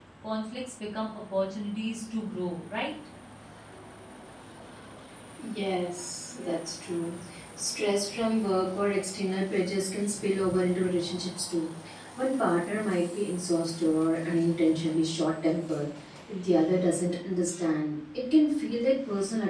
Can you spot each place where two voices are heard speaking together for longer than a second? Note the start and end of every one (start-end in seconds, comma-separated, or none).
none